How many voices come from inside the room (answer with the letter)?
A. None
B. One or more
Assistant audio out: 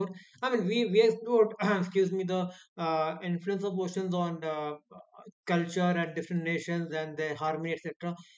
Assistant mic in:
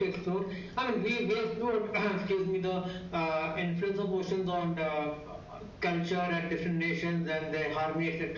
A